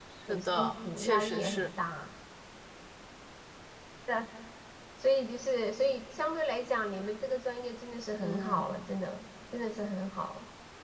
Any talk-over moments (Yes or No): Yes